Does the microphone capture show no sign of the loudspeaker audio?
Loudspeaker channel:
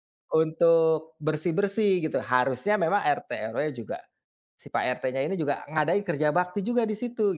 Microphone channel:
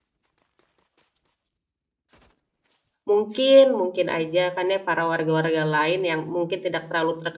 Yes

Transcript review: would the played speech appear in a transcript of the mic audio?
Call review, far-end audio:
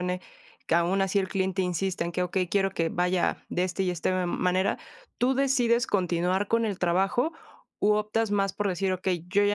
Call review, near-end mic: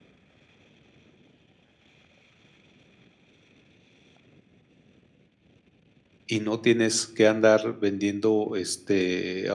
No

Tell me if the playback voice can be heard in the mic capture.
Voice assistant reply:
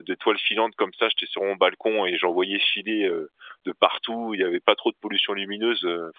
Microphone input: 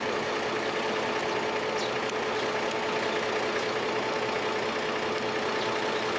No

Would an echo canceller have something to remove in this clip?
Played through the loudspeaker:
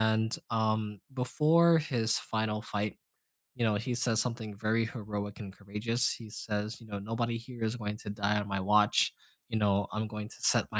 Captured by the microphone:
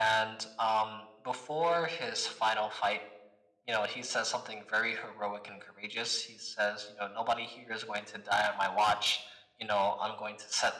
Yes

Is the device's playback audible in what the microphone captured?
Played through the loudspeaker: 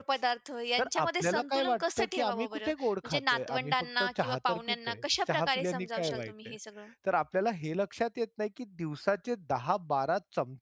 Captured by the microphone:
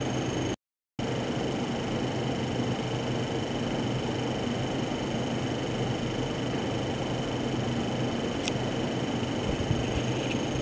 No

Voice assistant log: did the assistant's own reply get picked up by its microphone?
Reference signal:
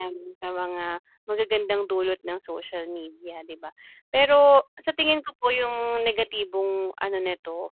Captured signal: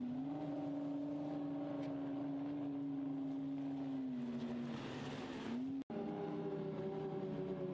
No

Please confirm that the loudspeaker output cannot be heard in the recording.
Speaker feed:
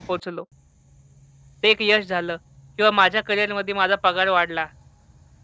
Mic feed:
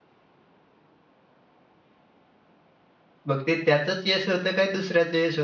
Yes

